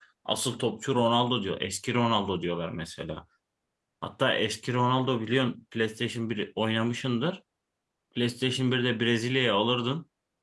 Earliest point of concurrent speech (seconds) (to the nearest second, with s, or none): none